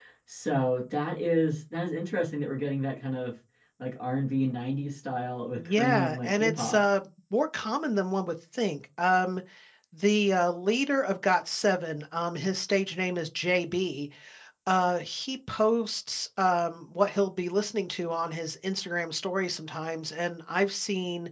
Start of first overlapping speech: 5.6 s

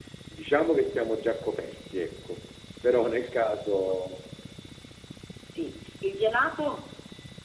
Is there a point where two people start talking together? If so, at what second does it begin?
none

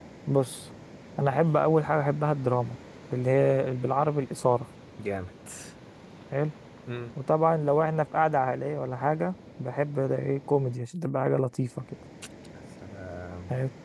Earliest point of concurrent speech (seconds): none

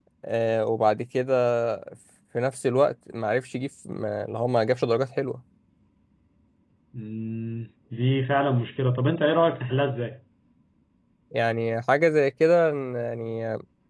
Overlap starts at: none

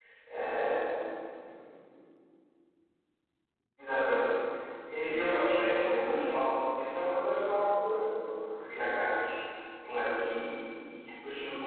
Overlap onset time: 5.0 s

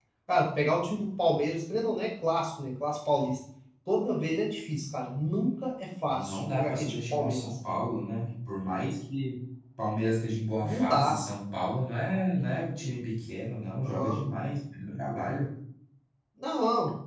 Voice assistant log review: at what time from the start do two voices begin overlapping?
6.1 s

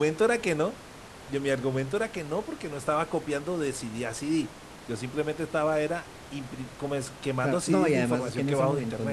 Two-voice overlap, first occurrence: 7.4 s

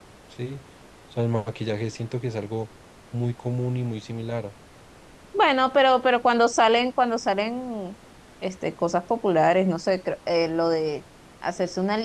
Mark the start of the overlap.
none

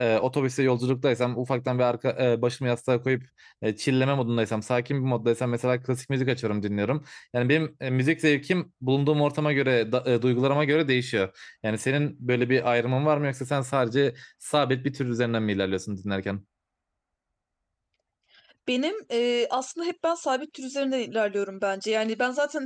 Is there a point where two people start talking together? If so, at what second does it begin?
none

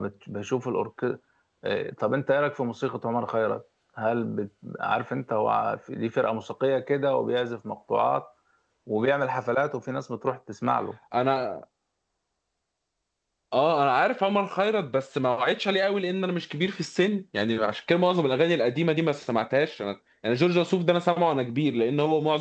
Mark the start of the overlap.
none

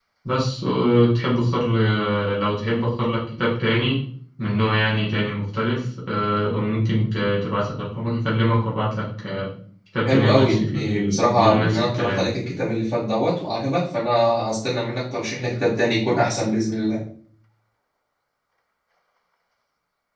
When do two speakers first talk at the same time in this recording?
10.1 s

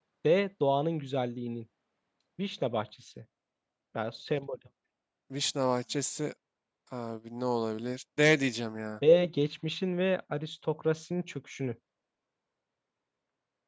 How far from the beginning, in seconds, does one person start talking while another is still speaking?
none

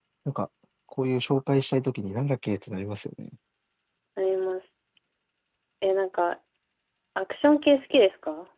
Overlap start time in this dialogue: none

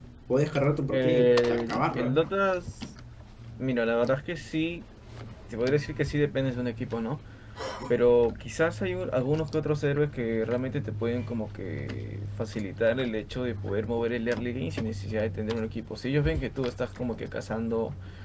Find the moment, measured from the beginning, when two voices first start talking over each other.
0.9 s

